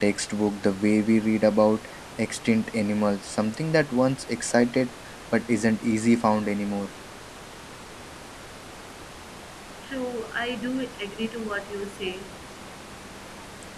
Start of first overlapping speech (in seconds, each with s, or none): none